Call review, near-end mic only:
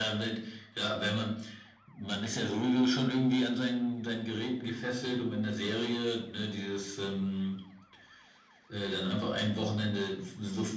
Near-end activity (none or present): none